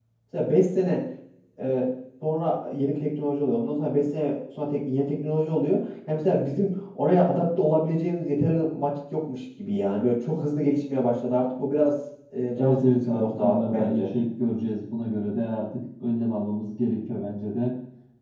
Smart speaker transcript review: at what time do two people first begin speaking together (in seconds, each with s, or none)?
12.6 s